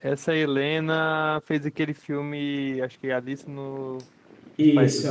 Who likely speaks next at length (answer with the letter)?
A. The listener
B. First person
A